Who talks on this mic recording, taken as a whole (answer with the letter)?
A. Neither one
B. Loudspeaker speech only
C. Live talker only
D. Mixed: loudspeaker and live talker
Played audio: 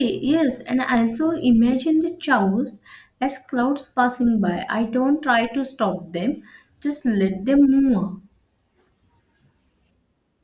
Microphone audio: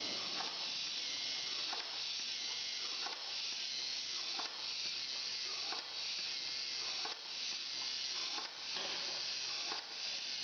A